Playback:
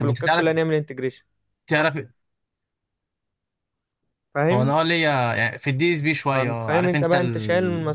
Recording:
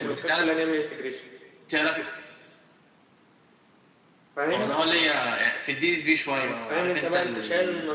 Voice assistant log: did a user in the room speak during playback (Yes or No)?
No